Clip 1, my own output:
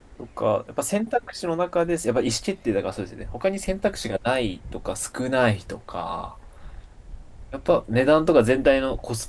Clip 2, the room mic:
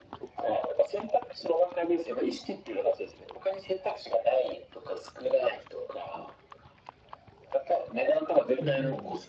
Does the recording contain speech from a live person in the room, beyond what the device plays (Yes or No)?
Yes